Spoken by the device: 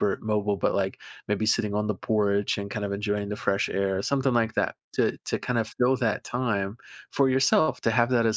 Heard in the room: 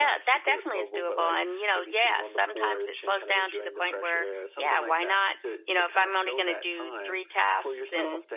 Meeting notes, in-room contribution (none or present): present